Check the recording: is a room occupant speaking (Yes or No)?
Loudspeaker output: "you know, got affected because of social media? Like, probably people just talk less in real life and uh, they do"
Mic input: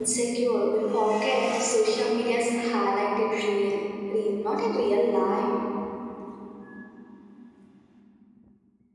Yes